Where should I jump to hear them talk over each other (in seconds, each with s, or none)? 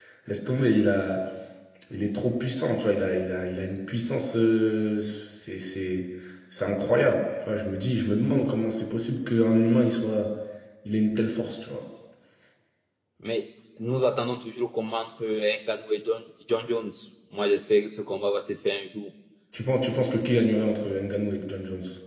none